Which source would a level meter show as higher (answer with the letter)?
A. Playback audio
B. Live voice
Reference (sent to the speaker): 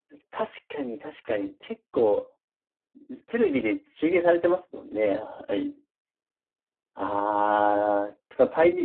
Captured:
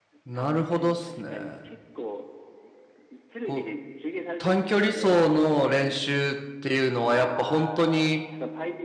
B